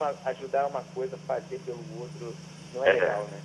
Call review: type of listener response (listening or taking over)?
taking over